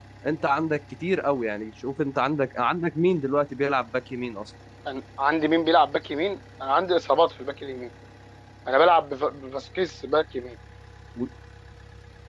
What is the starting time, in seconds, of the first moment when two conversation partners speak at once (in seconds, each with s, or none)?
none